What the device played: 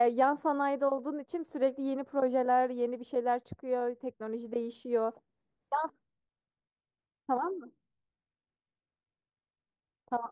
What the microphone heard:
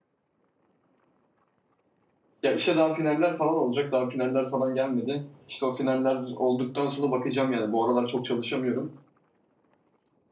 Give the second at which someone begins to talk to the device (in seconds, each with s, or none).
2.4 s